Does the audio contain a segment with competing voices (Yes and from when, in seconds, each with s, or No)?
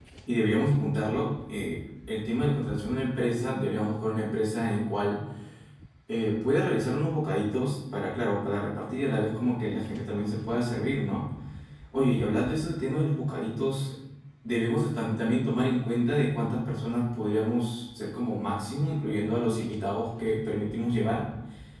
No